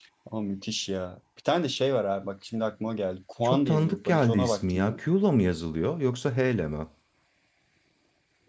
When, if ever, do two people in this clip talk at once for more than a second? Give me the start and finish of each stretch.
3.4-5.0

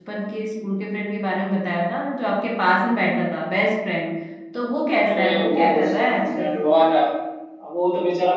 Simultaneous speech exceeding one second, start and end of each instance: 5.1-6.6

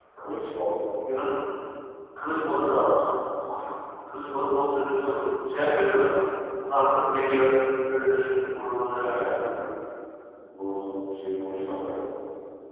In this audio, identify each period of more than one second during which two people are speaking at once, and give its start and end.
none

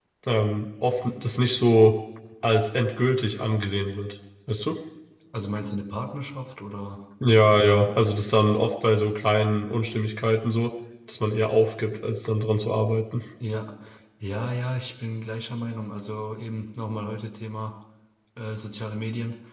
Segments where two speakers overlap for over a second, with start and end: none

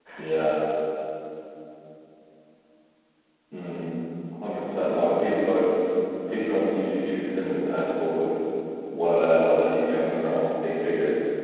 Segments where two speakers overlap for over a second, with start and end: none

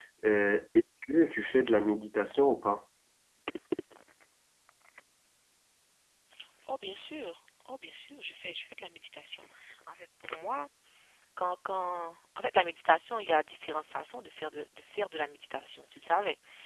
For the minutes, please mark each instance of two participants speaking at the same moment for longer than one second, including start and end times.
none

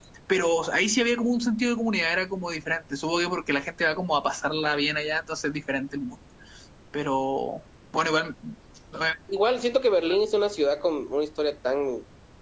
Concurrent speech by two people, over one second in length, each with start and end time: none

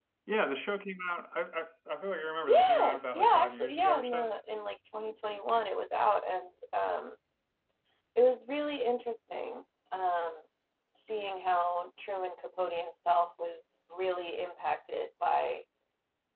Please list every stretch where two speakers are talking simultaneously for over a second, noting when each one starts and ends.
2.5-4.3

